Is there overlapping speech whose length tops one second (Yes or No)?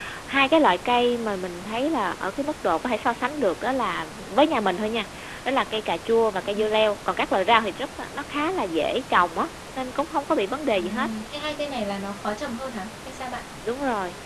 No